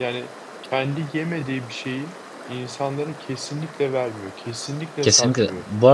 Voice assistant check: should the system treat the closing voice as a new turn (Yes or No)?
Yes